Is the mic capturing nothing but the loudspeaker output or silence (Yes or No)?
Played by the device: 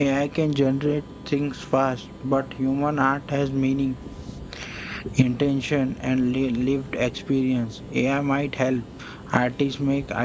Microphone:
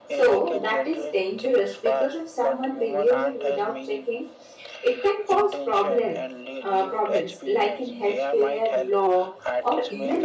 No